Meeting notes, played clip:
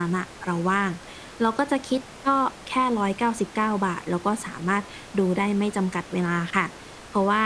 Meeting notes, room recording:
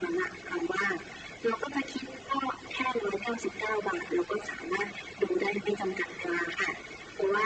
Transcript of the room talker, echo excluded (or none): none